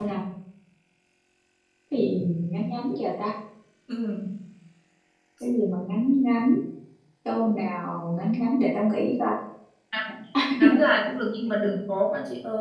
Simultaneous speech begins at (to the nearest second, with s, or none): none